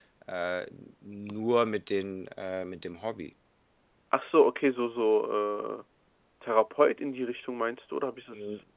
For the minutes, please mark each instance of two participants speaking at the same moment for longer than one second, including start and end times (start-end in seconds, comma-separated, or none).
none